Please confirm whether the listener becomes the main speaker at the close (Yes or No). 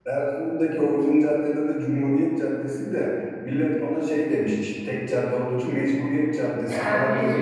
Yes